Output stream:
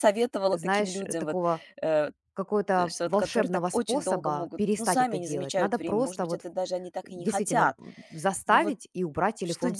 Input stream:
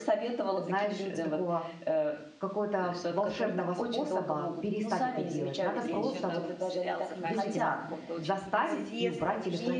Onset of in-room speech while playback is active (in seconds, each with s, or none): 5.7 s